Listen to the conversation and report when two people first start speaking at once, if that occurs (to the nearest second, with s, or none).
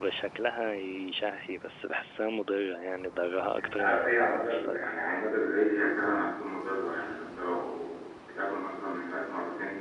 4 s